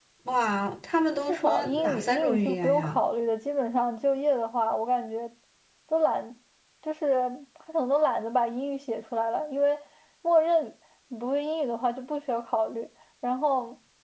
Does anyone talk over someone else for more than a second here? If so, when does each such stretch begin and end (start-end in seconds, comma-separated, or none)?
1.3-3.0